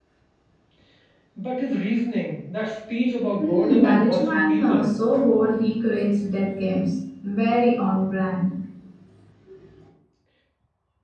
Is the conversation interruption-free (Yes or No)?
No